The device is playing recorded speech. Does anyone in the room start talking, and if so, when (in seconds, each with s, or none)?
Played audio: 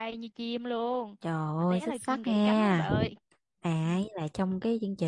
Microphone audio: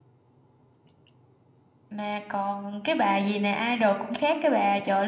1.9 s